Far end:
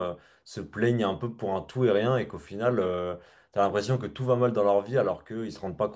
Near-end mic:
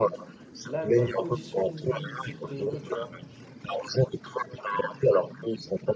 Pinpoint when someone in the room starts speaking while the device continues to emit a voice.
0.6 s

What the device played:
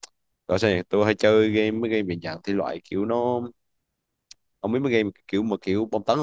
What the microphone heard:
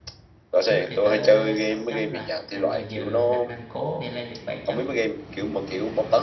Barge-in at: 0.6 s

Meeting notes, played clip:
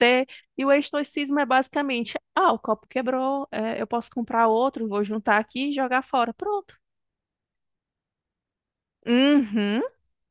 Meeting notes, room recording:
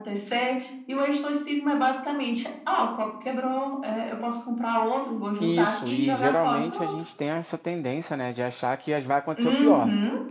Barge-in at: 5.4 s

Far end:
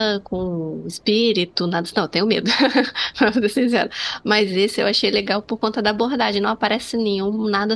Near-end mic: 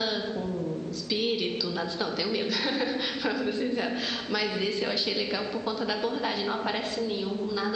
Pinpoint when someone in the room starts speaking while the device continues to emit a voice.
none

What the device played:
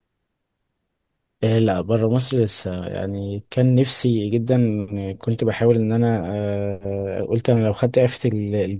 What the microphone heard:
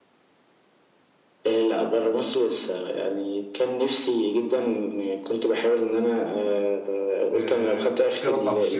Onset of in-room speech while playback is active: 7.3 s

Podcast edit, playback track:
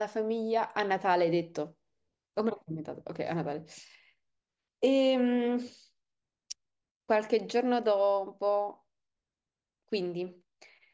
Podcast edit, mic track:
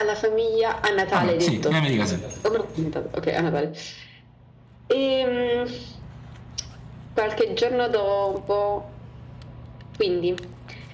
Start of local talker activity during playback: 1.1 s

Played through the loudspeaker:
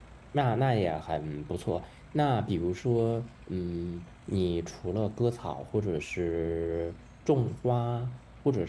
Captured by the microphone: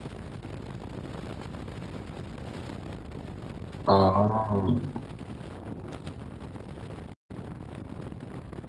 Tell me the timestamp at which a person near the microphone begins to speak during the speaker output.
3.8 s

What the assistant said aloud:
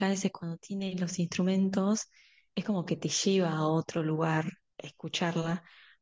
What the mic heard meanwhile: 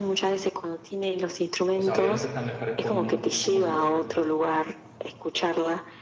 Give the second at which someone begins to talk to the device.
1.7 s

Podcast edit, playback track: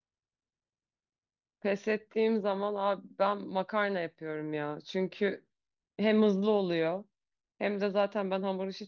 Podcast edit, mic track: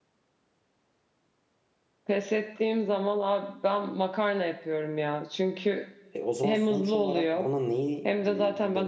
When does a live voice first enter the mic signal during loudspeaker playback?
6.1 s

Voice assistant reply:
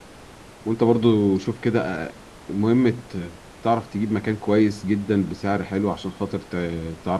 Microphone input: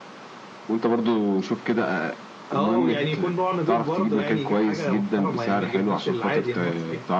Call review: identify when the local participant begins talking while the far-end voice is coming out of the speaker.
2.5 s

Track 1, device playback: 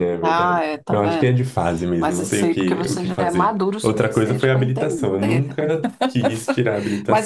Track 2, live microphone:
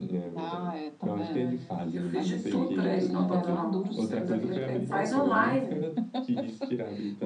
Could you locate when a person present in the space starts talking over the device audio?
1.1 s

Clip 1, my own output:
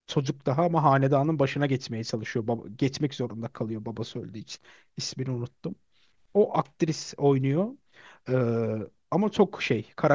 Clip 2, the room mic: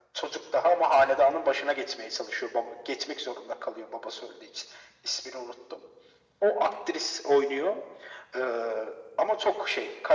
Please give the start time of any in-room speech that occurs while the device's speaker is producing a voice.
none

